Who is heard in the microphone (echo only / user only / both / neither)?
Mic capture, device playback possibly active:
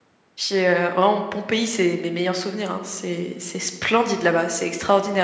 user only